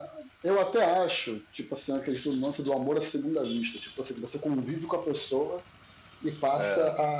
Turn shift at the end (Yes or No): No